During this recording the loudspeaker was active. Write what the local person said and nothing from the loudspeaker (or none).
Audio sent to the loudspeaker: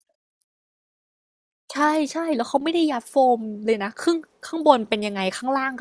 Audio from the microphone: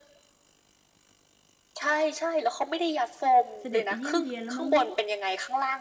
เสด็จไปเยี่ยมเยียนแล้วมั้งเนี่ย